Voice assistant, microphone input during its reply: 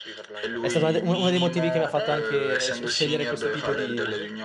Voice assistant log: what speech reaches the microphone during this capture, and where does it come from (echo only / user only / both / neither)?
both